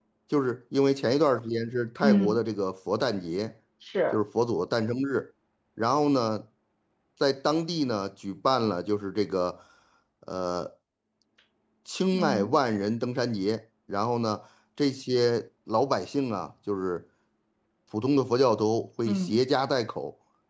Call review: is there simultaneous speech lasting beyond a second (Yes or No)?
No